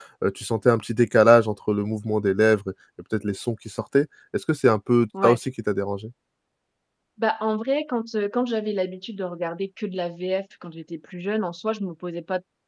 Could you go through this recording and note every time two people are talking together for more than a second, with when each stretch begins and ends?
none

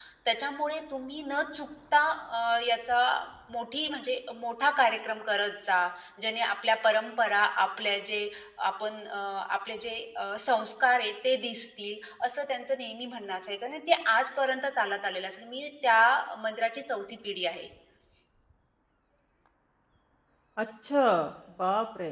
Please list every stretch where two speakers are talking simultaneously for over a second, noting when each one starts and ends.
none

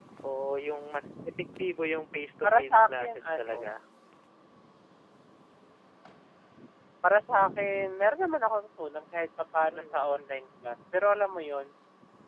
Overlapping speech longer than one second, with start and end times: 2.4-3.7

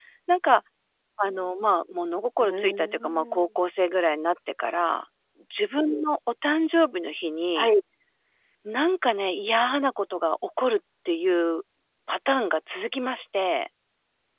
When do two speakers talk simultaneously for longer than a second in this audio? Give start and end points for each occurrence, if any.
2.4-3.6

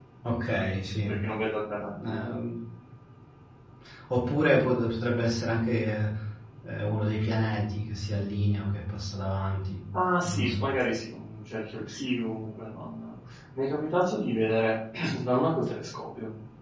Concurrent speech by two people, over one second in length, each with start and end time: none

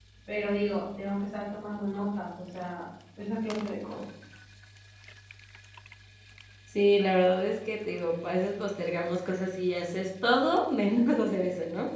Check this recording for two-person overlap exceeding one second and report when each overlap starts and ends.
none

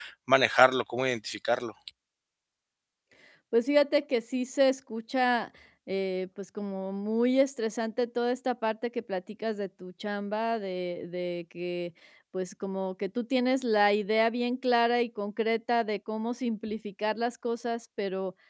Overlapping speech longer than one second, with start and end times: none

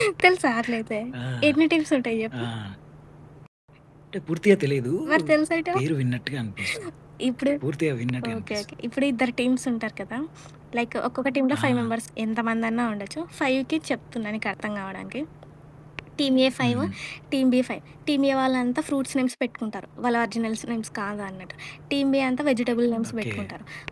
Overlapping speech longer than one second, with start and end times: none

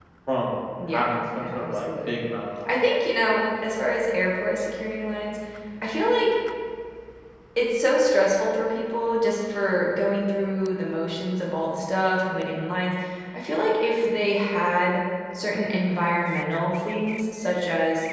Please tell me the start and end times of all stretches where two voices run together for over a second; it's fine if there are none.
0.9-2.1

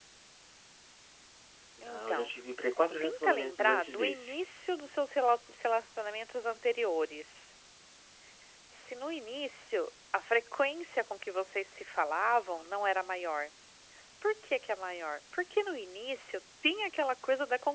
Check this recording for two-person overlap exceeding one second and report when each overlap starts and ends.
3.0-4.3

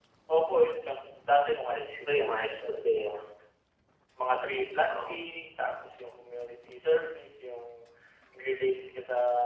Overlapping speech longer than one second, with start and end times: 1.7-3.2

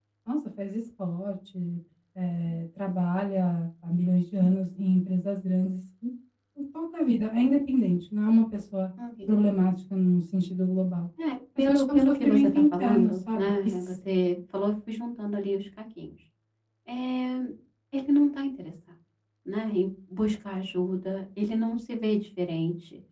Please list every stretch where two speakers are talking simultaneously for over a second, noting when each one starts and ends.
11.6-14.0

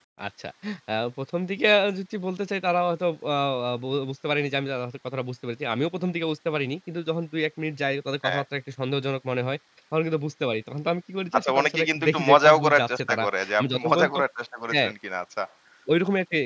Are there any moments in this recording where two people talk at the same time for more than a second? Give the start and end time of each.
11.3-14.1

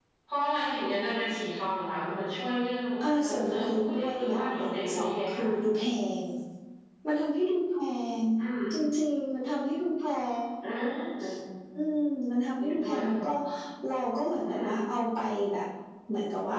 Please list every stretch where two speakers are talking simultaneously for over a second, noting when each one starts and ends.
3.2-5.4

